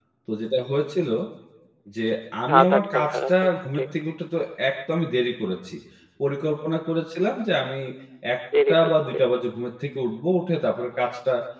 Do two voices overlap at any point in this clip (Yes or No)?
Yes